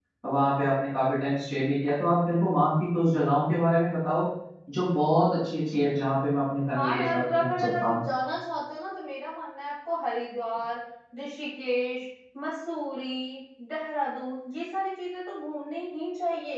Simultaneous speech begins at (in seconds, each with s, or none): 6.8 s